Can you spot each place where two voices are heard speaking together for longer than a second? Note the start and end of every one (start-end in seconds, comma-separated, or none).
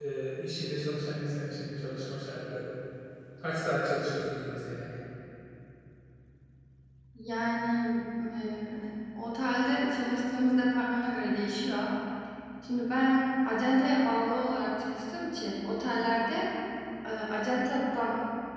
none